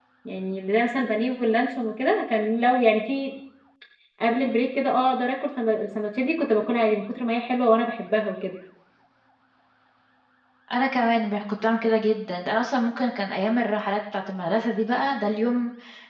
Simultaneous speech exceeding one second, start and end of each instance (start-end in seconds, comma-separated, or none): none